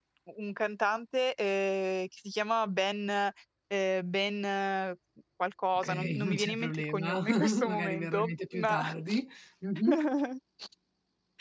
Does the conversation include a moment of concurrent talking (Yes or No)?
Yes